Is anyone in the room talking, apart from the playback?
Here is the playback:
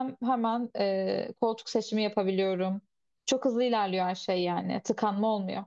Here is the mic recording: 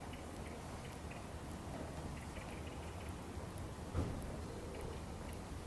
No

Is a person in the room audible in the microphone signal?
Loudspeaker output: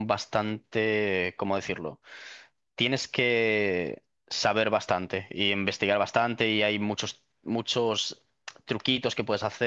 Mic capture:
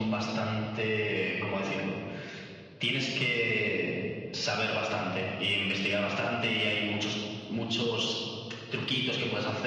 No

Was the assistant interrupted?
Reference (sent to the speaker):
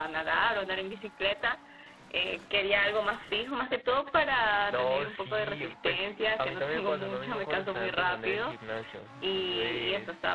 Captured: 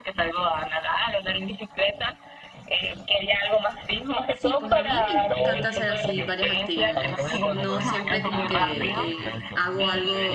Yes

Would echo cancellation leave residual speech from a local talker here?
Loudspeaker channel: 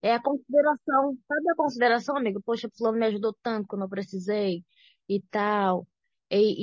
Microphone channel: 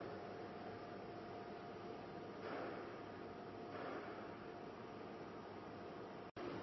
No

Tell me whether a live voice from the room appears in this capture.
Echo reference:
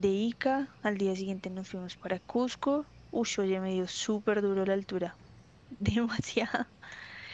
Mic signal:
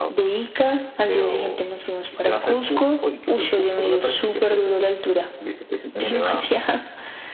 Yes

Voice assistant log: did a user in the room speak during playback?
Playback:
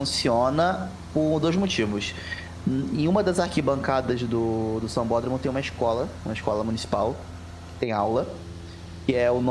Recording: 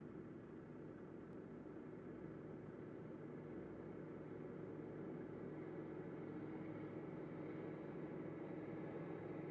No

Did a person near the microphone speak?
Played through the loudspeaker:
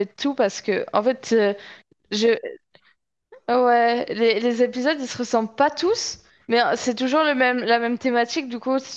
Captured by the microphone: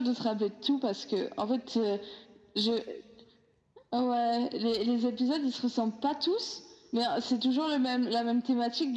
No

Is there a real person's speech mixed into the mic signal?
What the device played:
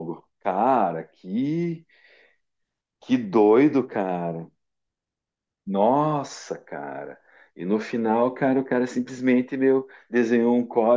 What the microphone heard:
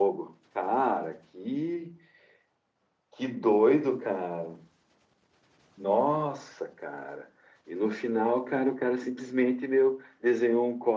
No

